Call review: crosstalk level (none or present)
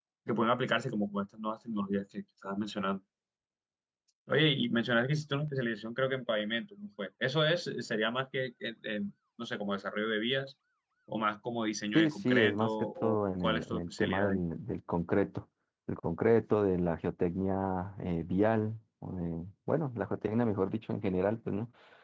present